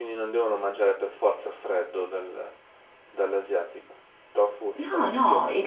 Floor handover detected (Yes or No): Yes